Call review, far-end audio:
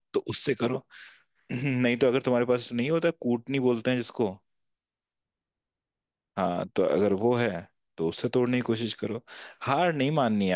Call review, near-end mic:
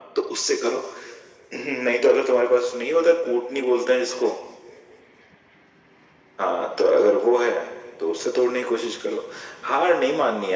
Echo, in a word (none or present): present